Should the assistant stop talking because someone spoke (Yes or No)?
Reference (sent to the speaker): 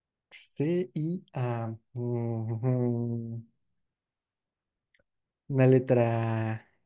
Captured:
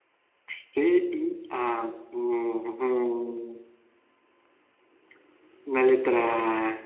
No